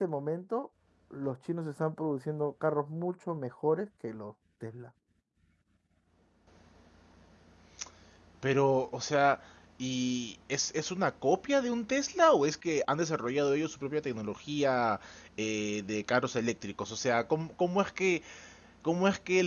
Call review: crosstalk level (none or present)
none